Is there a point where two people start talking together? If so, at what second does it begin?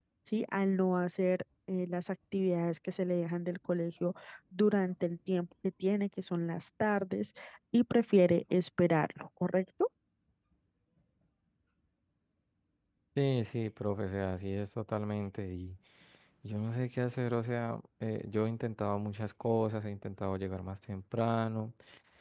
none

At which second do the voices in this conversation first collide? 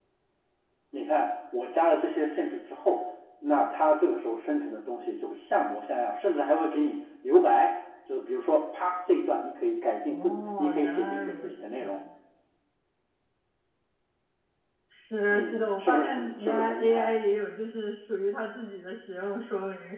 10 s

